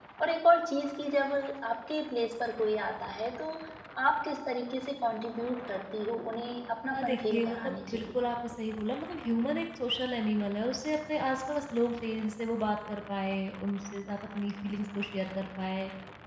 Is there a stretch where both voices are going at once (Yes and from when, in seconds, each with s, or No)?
Yes, from 6.9 s